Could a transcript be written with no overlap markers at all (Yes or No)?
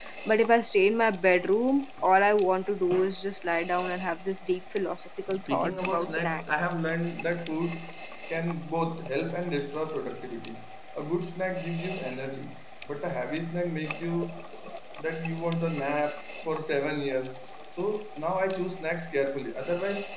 No